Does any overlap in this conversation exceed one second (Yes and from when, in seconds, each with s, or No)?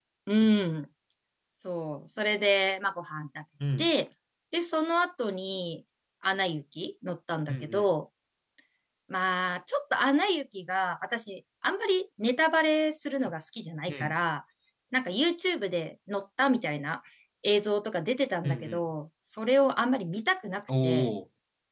No